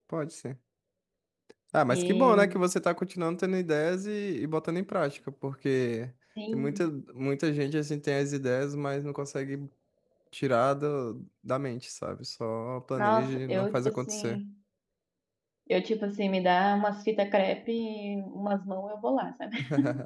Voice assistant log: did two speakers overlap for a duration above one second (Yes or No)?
Yes